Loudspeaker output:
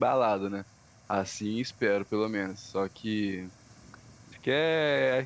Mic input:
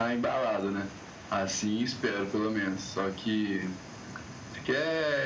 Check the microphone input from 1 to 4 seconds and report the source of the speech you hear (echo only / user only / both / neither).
echo only